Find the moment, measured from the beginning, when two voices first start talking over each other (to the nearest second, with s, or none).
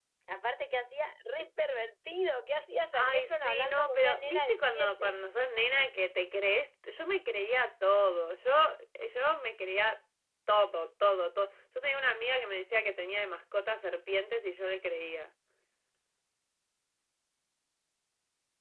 3 s